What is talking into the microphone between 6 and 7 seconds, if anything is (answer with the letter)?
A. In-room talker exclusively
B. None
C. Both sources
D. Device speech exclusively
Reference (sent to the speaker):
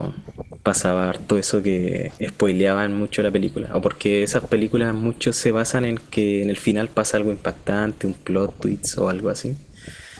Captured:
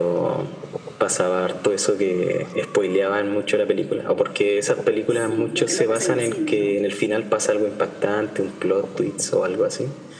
C